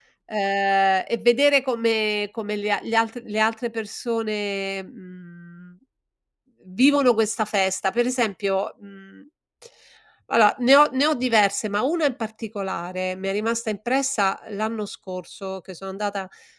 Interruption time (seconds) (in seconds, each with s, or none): none